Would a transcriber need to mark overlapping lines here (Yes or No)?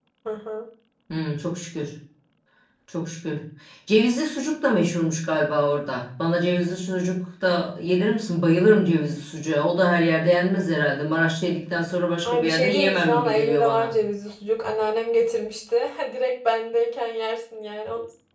Yes